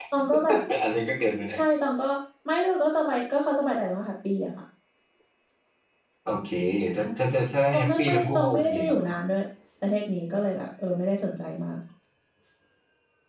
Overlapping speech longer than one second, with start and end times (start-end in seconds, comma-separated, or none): 7.7-9.0